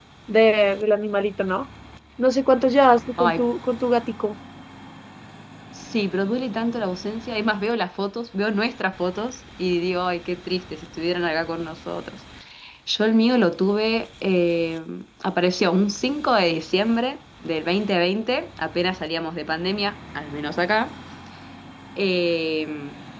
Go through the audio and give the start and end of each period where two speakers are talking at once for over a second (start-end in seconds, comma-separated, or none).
none